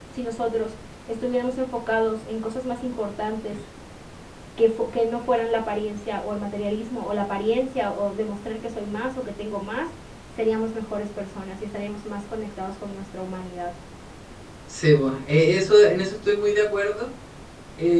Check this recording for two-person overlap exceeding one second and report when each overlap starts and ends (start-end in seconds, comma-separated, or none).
none